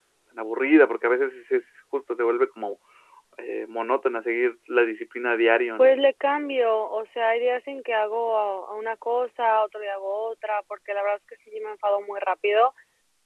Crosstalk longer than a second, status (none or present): none